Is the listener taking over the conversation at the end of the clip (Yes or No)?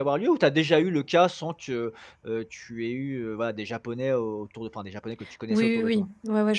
Yes